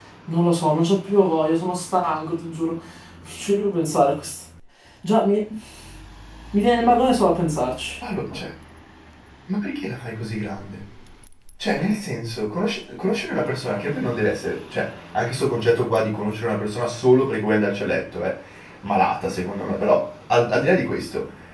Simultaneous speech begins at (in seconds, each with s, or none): none